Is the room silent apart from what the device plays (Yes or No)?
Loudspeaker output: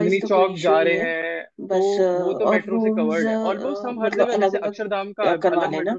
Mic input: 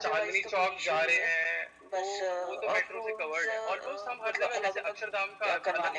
Yes